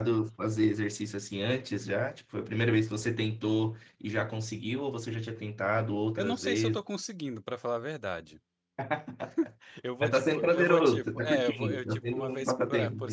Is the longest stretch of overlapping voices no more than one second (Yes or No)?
No